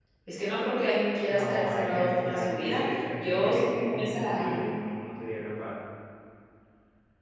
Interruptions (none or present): present